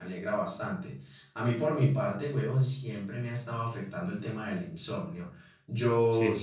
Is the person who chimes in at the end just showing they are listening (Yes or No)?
Yes